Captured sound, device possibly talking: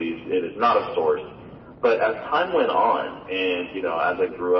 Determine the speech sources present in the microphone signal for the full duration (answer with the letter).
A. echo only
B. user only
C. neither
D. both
A